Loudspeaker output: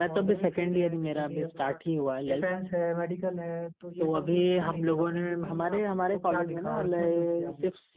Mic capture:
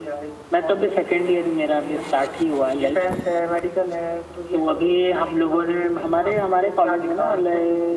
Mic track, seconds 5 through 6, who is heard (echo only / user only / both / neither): echo only